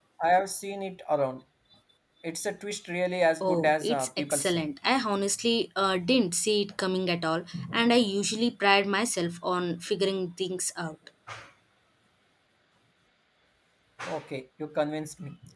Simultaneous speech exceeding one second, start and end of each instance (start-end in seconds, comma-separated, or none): 3.4-4.6